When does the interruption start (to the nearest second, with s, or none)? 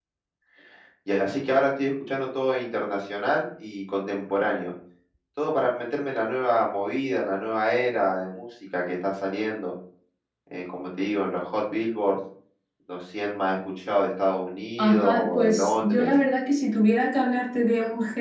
15 s